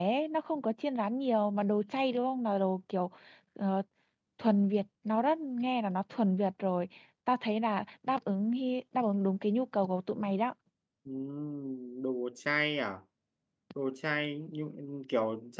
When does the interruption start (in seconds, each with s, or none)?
none